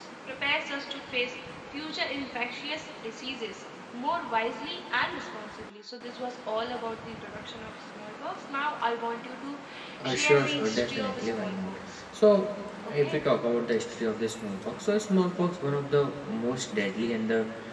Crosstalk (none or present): present